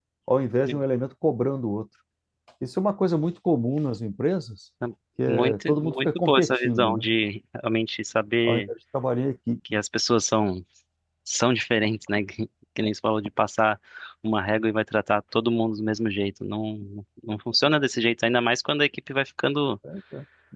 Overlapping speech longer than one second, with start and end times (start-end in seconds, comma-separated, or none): 5.3-7.1